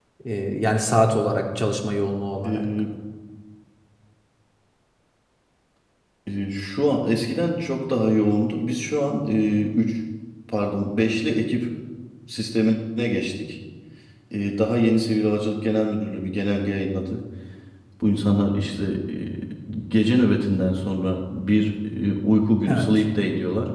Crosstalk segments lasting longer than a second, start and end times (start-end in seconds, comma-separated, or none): none